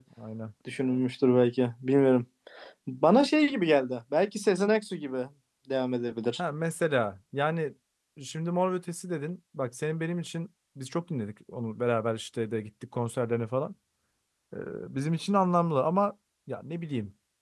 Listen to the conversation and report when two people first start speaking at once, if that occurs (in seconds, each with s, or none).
none